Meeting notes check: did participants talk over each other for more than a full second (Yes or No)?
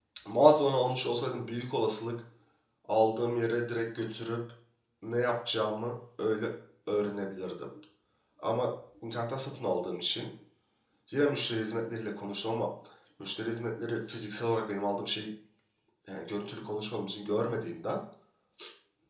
No